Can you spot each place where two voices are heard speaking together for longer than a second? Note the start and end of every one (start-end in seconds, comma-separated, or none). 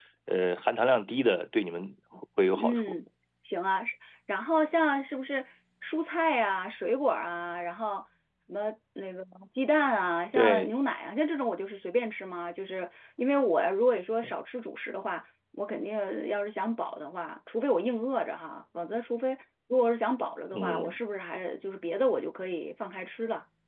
none